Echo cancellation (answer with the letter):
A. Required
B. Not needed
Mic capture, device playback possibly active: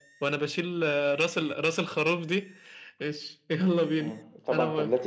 A